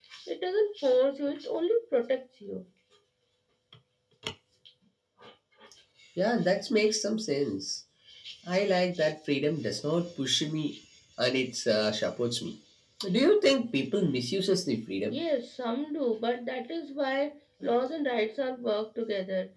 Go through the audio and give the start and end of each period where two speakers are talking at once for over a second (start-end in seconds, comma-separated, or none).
none